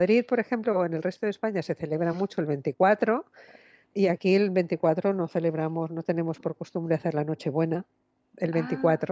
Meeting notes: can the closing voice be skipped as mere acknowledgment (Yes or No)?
Yes